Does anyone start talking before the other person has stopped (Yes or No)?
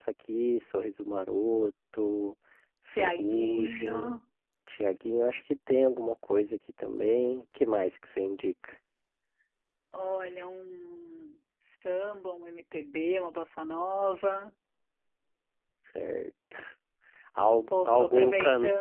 Yes